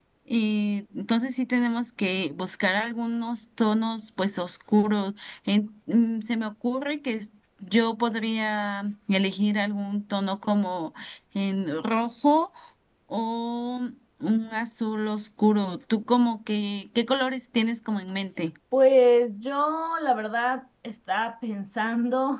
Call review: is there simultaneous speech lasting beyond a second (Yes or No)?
No